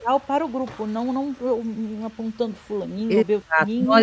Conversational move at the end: taking over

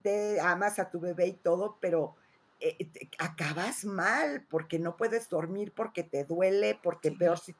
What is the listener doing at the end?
listening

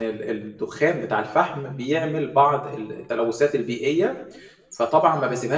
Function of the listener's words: listening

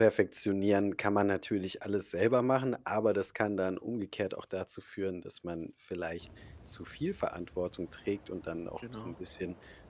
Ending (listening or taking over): listening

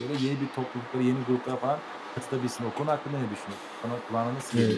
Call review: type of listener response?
taking over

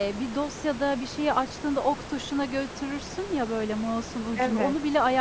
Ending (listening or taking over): listening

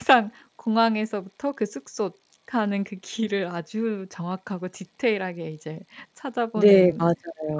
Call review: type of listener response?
taking over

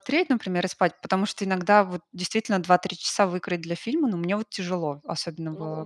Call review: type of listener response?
taking over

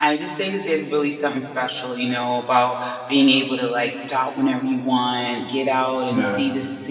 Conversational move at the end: listening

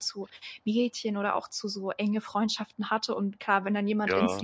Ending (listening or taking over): listening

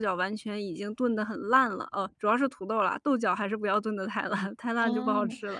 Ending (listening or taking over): taking over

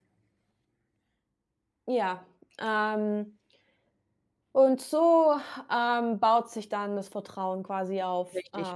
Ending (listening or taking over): taking over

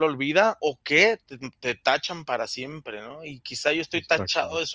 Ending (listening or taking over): listening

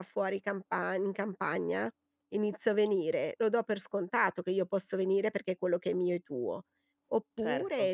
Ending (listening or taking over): listening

